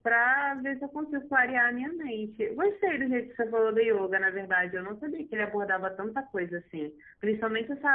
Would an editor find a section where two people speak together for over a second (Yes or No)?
No